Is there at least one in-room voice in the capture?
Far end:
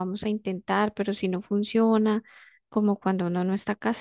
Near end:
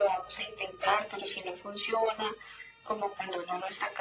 No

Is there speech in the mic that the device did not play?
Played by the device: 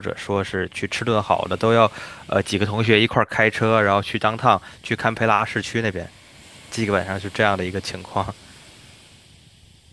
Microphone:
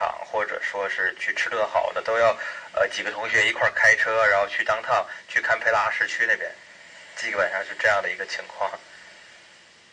No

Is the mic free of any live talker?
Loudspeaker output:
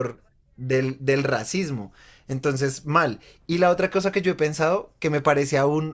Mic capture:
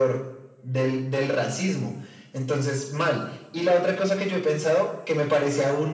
Yes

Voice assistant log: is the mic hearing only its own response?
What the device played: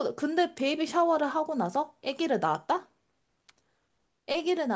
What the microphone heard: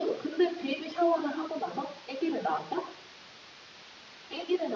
Yes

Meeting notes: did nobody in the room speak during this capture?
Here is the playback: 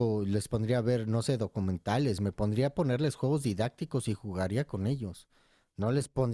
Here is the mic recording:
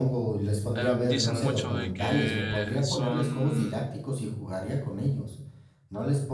No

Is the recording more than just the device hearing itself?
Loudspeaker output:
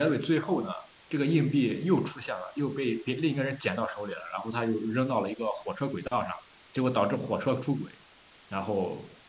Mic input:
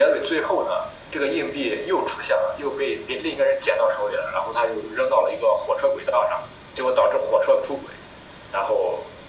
No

